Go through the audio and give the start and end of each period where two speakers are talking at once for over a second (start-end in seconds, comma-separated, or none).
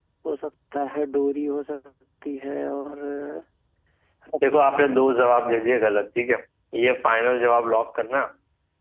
none